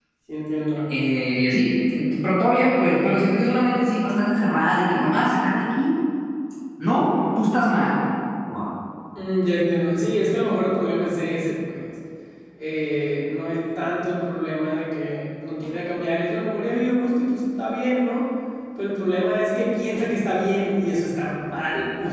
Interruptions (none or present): none